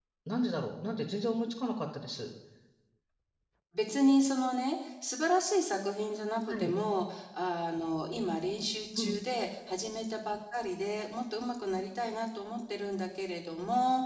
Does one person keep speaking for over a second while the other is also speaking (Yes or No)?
No